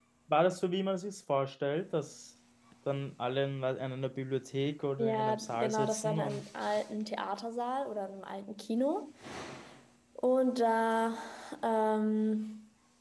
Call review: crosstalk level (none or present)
present